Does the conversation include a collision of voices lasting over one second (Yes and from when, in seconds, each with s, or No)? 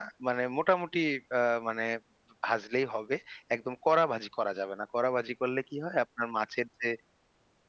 No